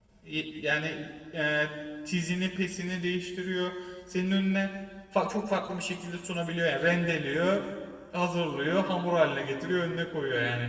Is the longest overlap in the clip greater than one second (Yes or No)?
No